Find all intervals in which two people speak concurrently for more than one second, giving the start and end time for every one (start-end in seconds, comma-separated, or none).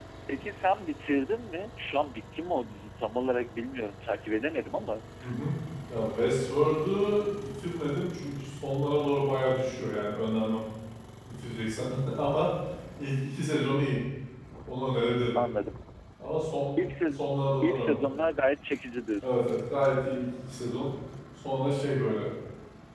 none